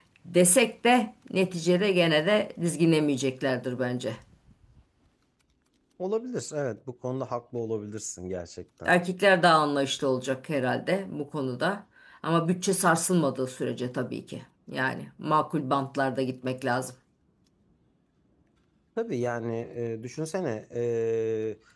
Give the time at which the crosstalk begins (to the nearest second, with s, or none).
none